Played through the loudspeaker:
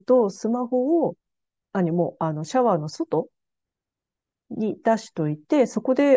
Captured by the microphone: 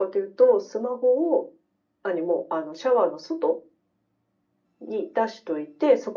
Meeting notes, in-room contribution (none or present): none